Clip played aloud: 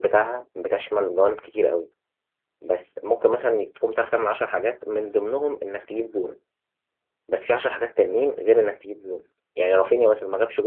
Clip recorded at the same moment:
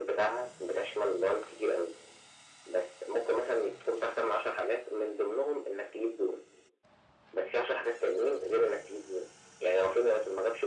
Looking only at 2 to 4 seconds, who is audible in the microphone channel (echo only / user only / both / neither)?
echo only